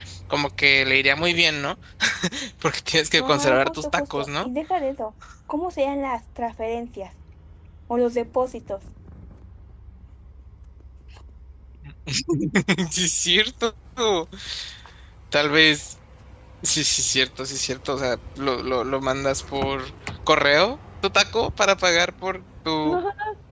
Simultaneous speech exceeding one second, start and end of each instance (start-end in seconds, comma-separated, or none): 3.2-4.5